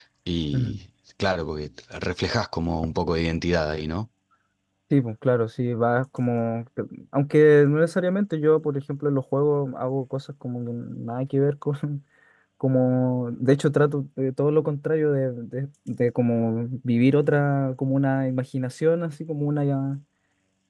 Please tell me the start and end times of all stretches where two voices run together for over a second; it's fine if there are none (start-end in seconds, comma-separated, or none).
none